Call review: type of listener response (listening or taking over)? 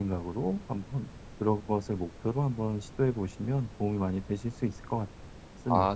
taking over